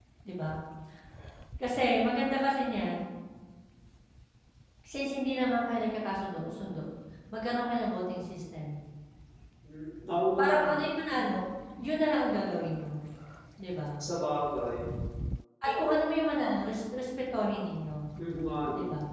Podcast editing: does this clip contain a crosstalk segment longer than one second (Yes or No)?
No